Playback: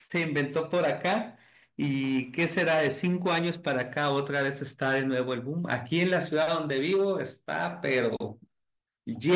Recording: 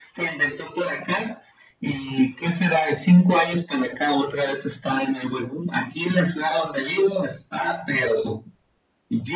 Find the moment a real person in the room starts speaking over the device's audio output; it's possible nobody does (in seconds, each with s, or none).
none